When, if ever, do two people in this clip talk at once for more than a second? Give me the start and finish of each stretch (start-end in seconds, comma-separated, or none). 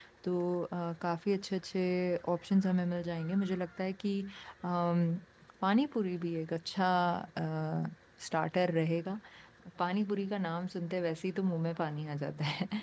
none